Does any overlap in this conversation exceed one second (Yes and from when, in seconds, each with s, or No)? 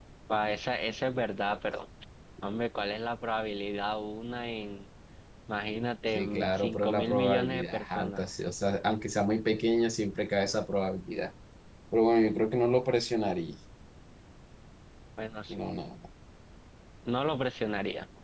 Yes, from 6.2 s